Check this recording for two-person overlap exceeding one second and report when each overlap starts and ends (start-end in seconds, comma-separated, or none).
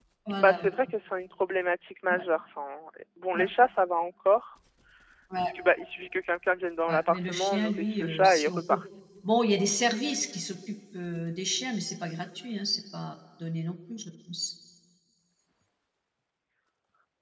6.9-8.8